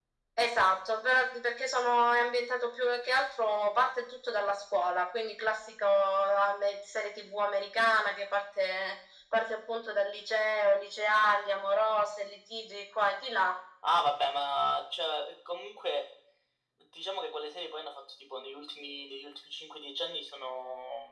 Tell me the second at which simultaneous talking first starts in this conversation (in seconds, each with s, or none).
none